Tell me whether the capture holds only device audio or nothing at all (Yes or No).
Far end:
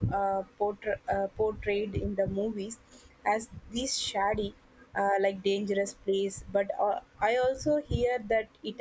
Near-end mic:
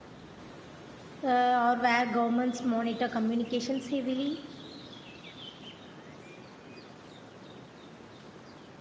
No